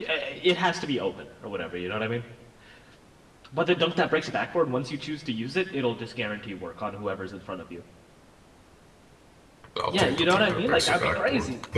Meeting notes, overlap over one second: present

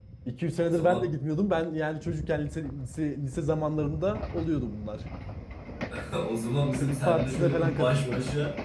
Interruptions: present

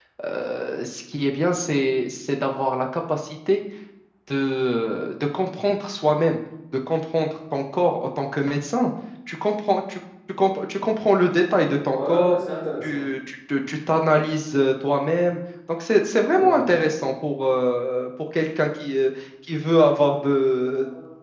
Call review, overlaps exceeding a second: none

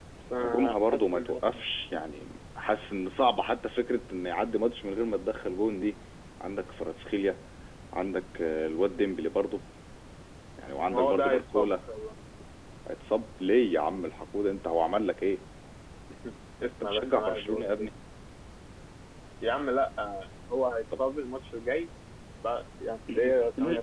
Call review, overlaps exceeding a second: present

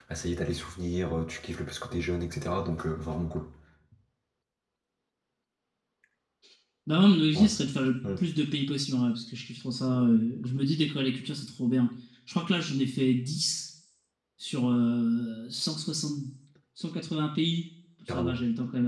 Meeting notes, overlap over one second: none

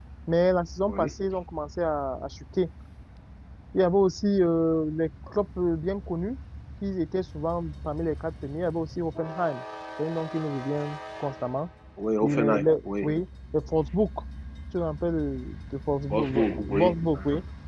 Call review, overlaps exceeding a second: present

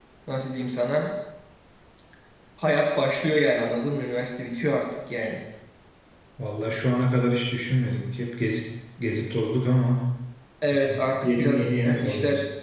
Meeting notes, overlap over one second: present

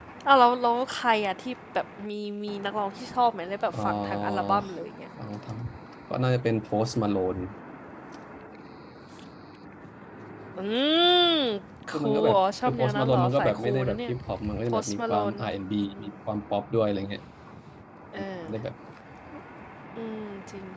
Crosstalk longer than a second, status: present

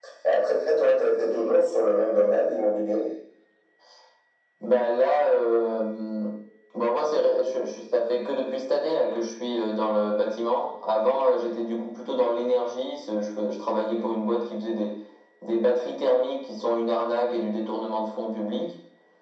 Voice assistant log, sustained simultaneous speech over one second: none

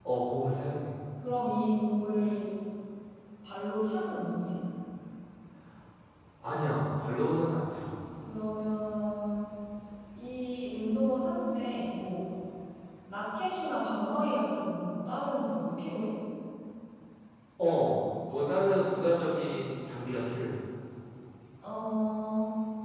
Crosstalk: none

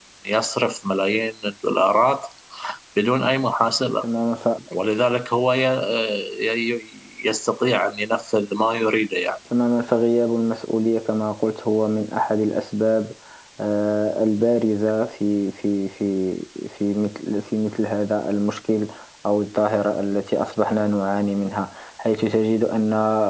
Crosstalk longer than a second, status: none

